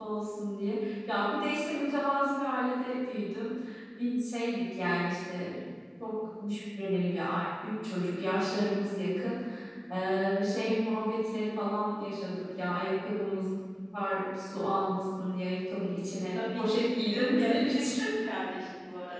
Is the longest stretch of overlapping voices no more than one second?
No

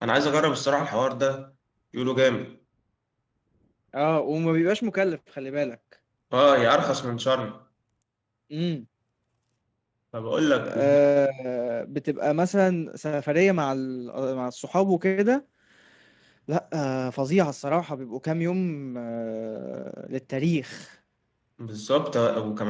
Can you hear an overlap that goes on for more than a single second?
No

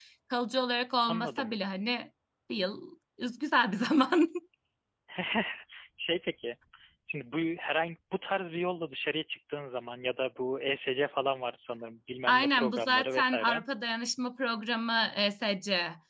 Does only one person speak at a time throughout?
No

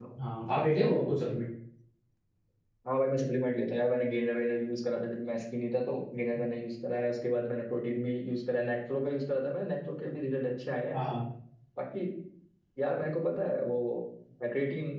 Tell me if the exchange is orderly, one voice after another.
Yes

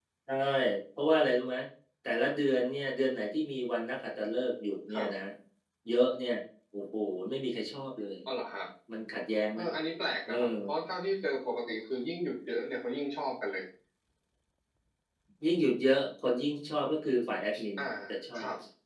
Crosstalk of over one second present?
No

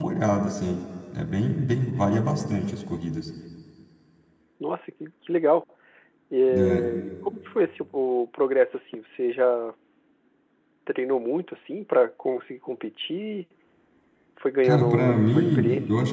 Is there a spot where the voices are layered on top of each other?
Yes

